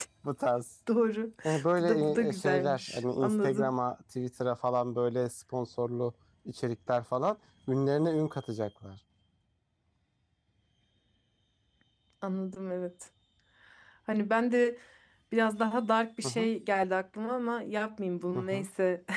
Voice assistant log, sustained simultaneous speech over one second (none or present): present